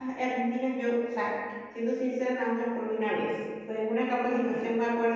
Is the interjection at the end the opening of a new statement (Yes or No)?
No